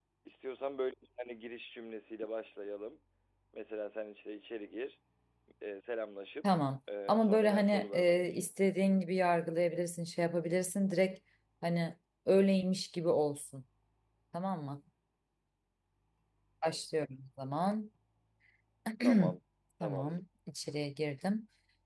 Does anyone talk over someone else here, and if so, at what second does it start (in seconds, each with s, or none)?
7.1 s